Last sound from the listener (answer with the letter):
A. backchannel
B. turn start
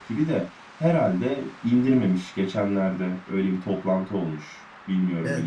B